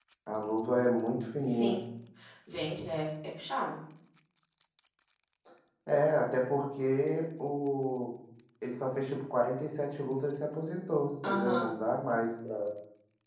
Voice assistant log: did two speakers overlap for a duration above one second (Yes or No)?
No